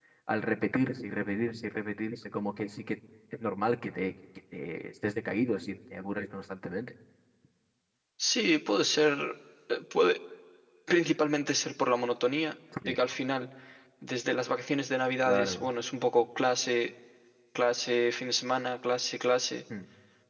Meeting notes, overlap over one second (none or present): none